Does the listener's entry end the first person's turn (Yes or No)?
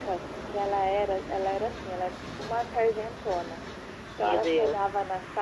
No